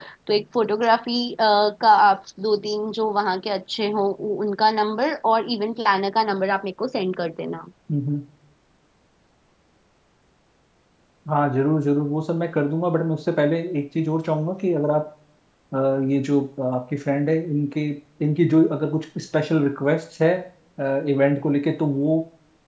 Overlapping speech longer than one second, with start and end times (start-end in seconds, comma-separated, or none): none